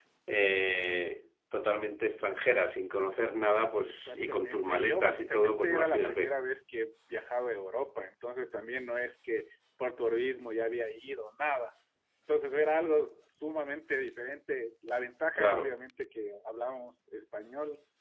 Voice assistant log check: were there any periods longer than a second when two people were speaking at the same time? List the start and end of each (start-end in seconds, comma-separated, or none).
3.8-6.3